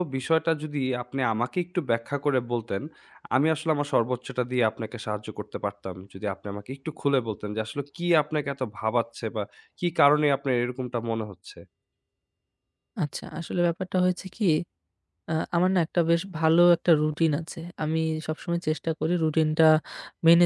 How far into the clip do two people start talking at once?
none

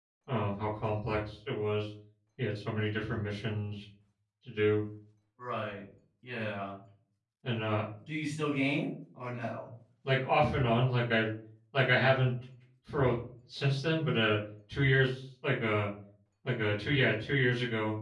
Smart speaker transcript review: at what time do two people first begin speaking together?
none

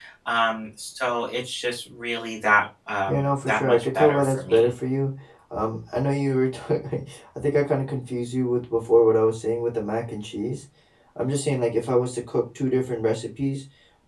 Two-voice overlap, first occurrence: 3 s

